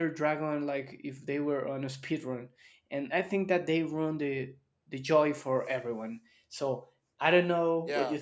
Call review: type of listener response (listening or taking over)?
taking over